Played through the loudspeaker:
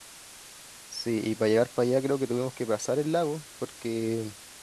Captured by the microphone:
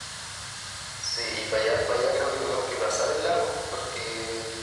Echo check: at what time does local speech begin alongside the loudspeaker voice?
none

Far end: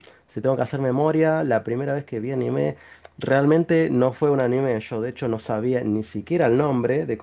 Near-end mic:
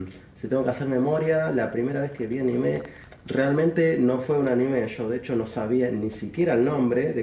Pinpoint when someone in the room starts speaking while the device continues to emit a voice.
none

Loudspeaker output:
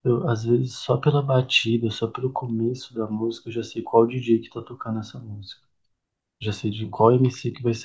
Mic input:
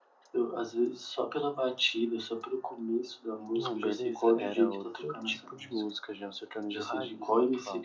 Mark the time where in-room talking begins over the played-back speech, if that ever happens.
3.5 s

